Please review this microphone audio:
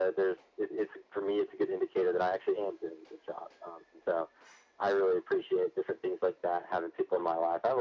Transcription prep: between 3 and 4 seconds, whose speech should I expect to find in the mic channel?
echo only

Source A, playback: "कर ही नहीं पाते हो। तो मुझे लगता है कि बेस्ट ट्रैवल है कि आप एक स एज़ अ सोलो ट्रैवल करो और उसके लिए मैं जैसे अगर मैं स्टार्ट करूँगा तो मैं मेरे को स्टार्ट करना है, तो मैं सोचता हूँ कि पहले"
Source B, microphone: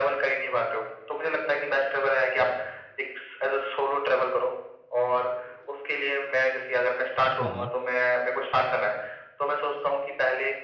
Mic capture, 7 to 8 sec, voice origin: both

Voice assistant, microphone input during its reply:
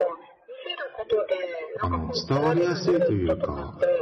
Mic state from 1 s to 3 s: both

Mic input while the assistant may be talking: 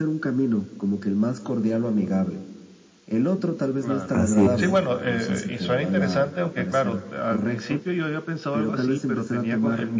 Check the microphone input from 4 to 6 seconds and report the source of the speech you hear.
both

